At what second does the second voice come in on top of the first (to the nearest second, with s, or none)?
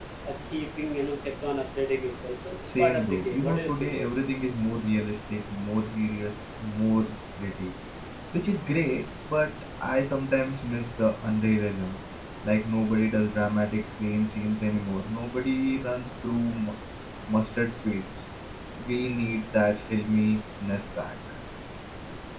3 s